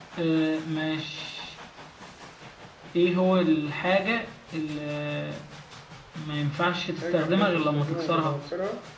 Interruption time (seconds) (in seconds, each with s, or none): 7.0 s